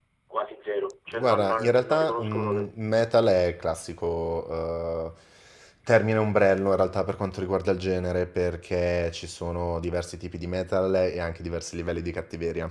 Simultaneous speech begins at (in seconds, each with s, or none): 1.1 s